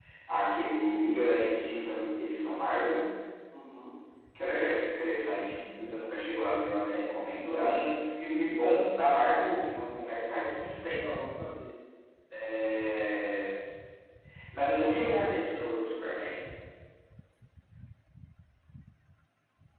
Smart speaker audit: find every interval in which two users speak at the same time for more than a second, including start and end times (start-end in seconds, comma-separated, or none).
none